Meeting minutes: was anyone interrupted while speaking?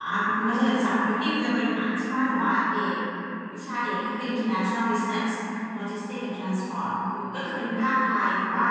No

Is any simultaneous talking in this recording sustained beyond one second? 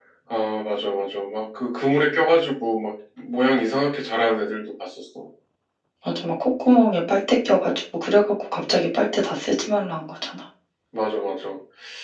No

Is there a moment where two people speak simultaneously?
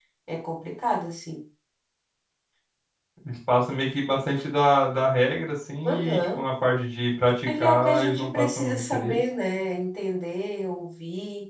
Yes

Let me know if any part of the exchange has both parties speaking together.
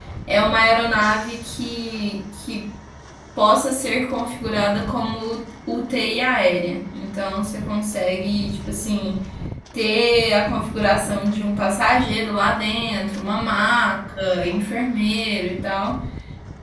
No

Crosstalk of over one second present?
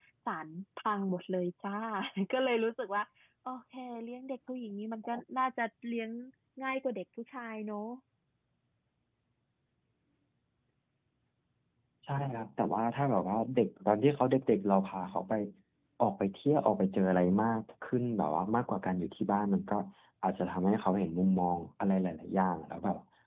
No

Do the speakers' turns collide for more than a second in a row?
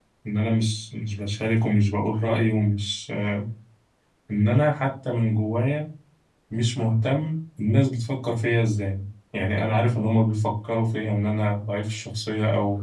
No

